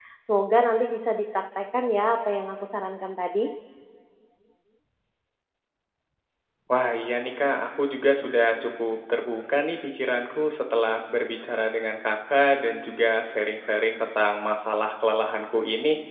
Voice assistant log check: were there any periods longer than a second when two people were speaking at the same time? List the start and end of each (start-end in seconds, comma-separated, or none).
none